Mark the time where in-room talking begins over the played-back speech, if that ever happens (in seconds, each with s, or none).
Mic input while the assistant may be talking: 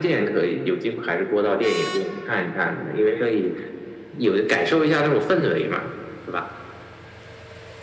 none